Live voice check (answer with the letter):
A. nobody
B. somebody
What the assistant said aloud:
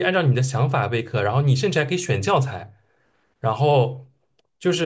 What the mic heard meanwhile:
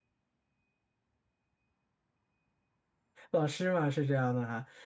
B